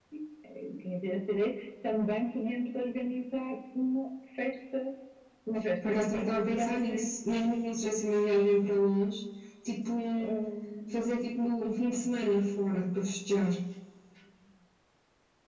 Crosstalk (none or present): present